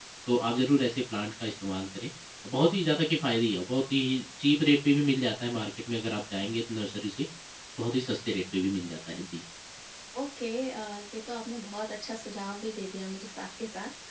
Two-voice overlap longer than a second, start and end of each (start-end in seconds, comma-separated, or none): none